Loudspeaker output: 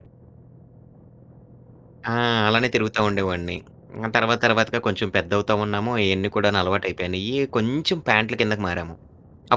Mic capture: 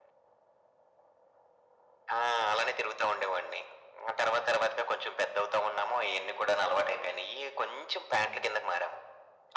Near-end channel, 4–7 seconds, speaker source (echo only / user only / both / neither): echo only